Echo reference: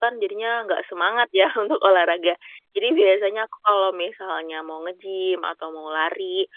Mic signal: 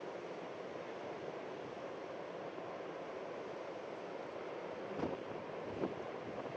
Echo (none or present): none